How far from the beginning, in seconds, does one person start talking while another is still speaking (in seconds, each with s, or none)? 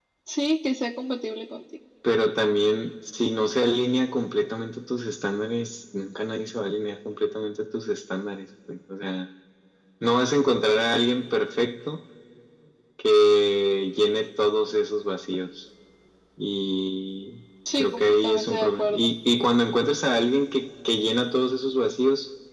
17.8 s